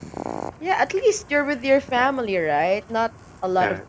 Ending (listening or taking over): listening